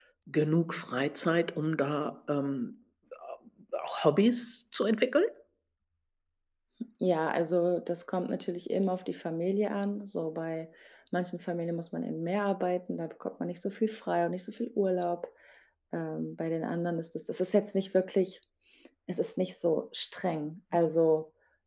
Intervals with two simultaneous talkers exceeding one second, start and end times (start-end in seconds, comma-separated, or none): none